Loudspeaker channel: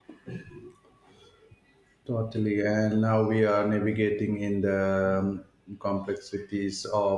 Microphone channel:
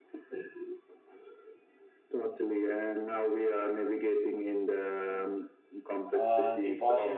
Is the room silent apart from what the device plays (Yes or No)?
No